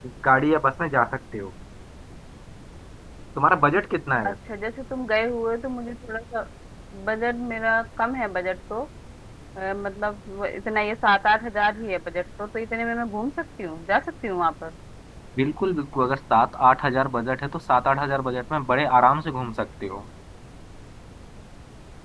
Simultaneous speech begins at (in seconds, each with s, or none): none